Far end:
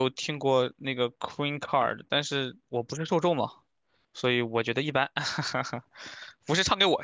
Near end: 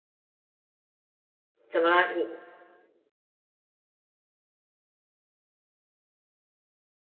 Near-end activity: present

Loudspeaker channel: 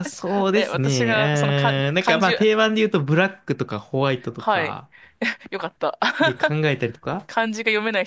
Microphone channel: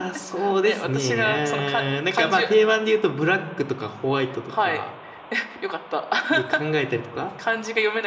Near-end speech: none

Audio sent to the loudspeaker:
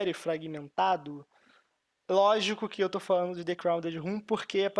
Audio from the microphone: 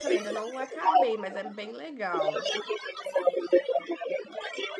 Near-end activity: present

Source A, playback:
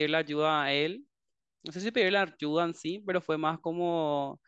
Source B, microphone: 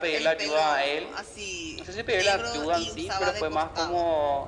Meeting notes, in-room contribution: present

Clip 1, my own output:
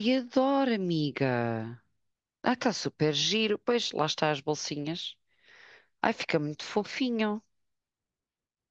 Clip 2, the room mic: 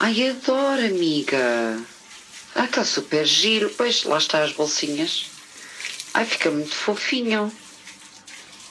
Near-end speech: none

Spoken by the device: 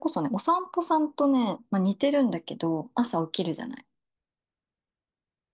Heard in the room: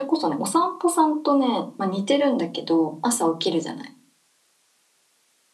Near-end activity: none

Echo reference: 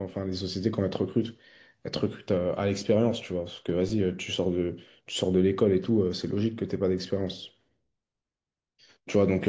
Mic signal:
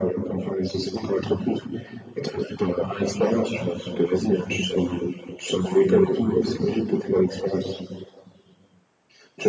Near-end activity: none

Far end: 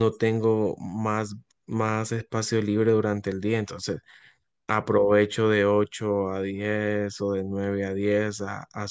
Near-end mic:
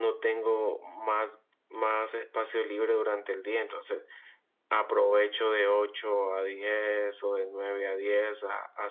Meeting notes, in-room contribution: none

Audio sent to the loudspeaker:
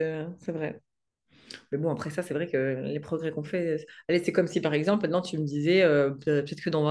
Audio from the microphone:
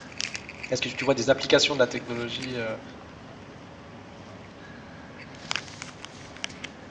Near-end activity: present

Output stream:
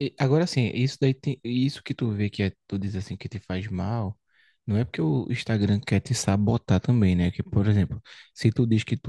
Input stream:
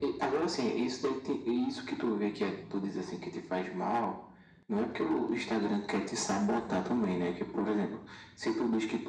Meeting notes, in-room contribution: none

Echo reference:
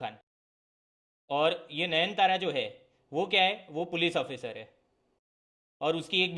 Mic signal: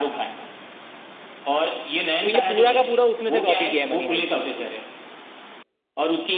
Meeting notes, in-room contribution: present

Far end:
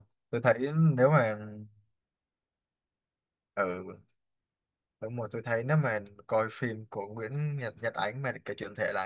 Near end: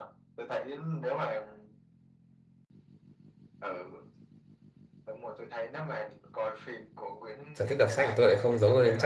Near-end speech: present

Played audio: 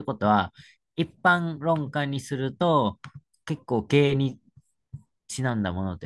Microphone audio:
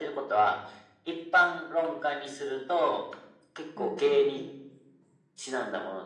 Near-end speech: present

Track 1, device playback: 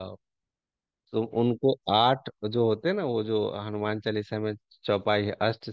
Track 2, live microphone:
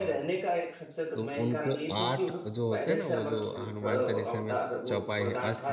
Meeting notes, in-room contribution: present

